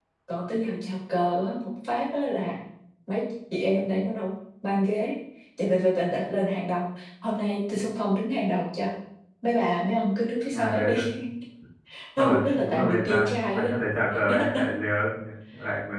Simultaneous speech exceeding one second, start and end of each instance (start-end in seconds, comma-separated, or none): 12.2-13.6